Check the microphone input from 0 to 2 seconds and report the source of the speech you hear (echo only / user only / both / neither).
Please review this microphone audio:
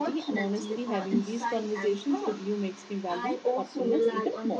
both